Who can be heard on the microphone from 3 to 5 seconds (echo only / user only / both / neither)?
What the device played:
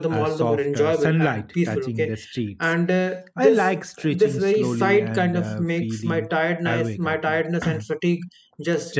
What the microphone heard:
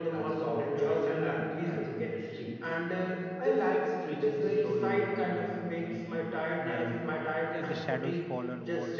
echo only